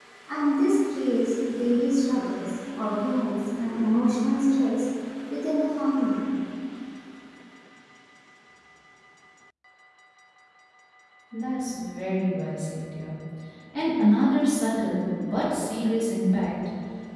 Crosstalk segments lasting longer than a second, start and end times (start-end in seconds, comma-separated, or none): none